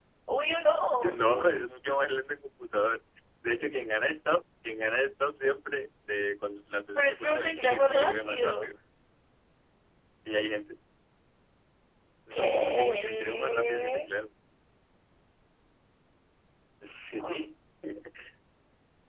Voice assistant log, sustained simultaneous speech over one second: present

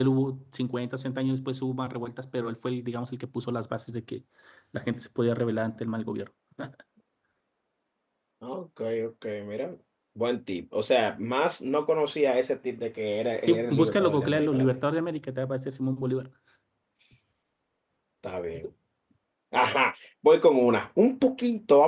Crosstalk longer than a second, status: present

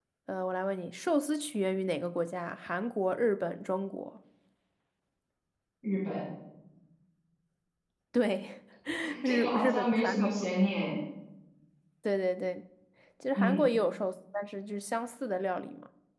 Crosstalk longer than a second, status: present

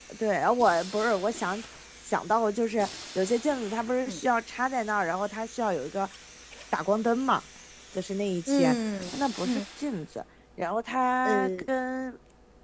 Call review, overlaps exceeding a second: none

